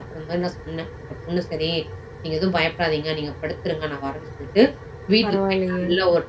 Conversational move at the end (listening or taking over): listening